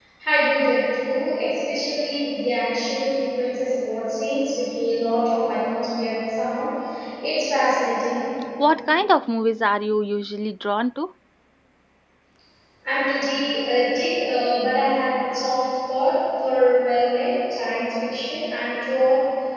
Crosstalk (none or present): none